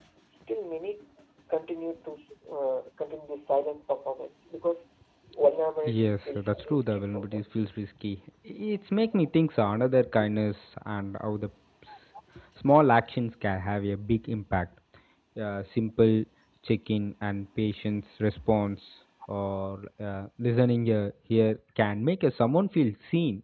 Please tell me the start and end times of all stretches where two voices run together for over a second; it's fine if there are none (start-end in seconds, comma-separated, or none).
5.8-7.4